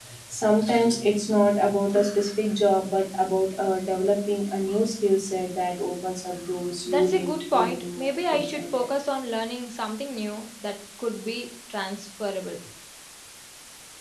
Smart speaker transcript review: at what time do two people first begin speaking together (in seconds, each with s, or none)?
6.8 s